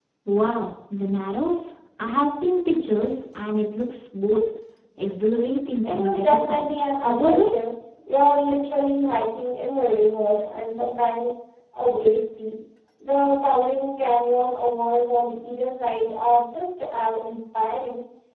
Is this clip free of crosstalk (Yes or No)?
No